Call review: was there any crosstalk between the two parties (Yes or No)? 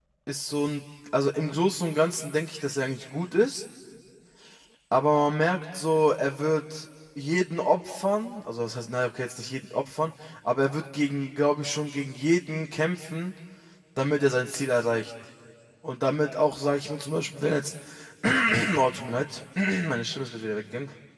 No